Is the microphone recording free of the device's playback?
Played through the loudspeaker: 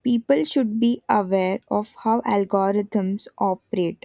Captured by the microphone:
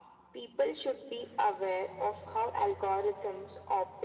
No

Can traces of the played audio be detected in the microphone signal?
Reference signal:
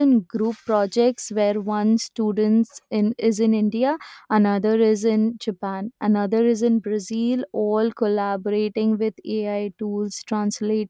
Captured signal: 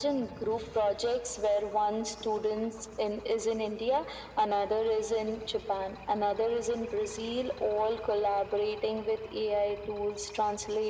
Yes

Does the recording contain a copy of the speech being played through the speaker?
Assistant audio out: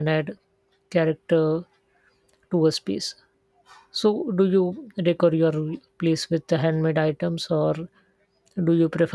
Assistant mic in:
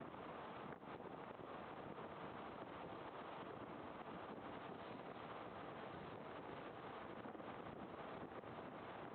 No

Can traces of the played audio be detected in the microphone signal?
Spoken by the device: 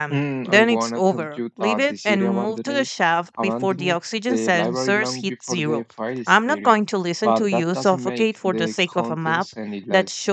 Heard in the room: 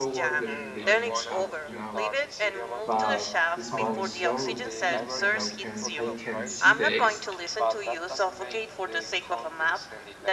Yes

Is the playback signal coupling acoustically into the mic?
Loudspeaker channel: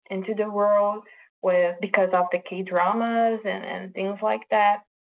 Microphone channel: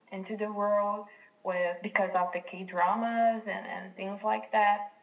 Yes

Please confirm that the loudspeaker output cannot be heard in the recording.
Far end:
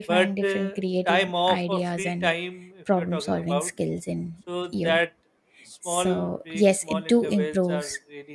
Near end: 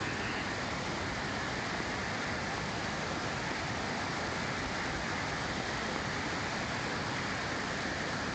Yes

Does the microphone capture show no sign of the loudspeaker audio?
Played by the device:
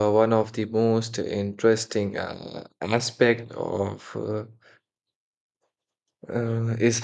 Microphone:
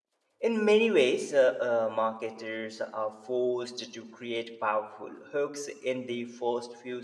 Yes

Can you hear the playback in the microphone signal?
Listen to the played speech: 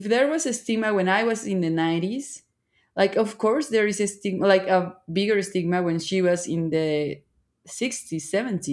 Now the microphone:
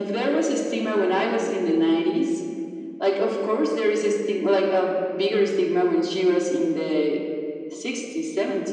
Yes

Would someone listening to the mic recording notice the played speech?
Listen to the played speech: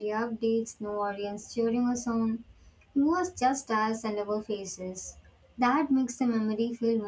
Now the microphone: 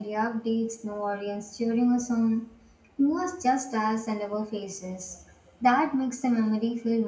Yes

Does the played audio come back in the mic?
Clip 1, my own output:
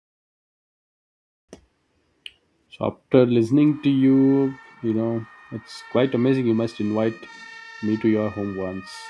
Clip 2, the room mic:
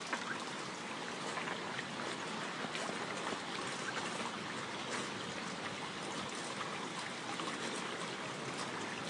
No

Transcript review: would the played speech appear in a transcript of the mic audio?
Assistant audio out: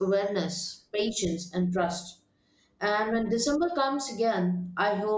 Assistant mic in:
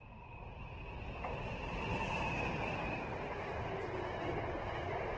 No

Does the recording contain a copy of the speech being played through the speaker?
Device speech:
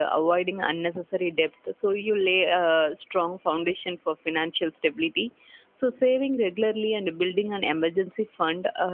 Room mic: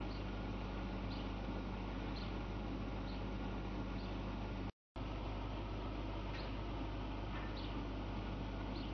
No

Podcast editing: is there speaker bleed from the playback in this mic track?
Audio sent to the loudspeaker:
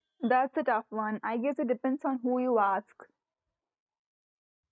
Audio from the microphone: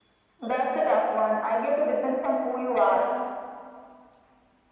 Yes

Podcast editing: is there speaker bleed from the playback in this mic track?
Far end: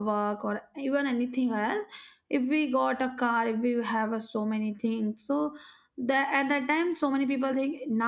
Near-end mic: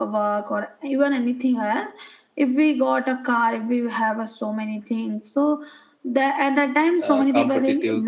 Yes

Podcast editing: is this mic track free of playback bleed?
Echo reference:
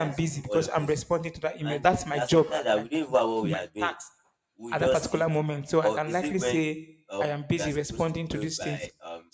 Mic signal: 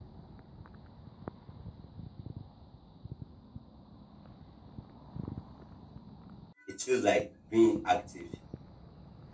Yes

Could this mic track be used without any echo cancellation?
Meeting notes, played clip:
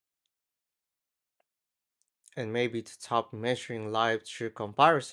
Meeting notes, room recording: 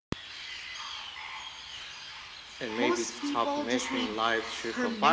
No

